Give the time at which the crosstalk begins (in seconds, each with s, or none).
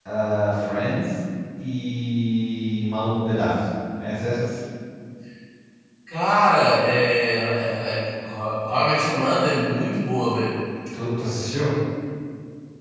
none